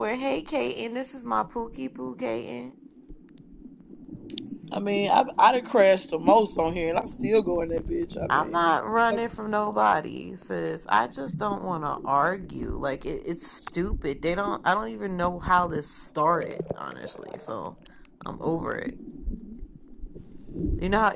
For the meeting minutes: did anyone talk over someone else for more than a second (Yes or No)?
No